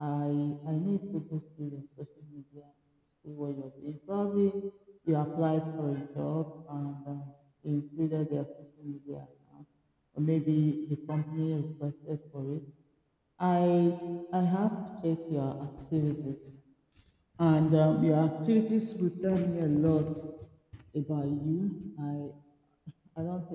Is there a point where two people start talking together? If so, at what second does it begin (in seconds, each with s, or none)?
none